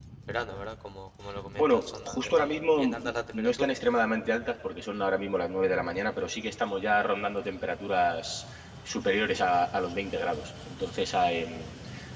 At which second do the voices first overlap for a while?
1.6 s

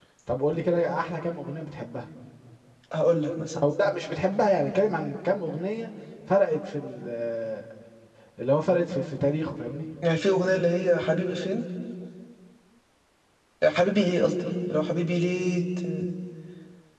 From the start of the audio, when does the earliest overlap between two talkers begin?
none

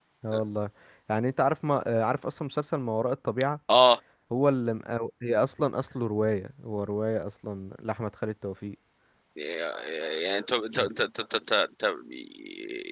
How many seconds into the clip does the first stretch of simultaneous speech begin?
none

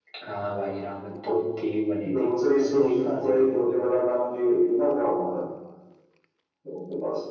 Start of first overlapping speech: 2.1 s

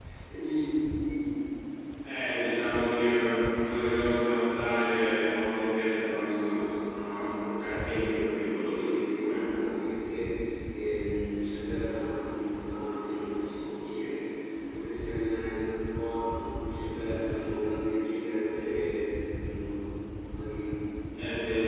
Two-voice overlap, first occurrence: 7.6 s

